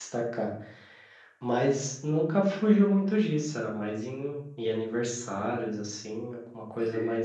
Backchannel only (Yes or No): Yes